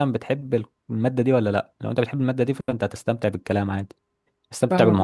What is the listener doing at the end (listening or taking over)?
taking over